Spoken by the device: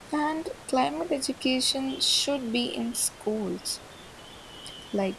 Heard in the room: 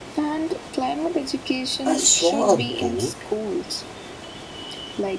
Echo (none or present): present